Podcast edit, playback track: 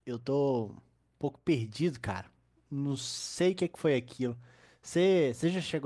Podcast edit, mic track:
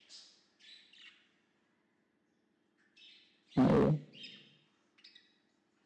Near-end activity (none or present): present